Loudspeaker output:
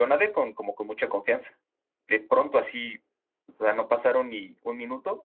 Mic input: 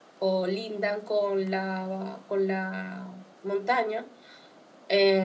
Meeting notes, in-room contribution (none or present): present